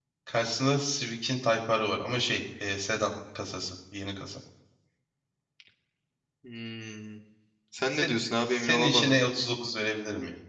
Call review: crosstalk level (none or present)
present